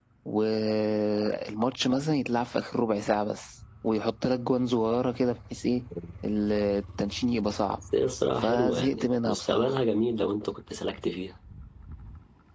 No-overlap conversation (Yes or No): No